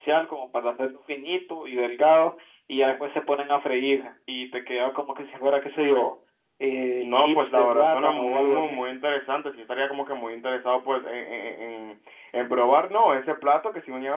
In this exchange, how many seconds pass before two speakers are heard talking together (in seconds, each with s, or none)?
7.0 s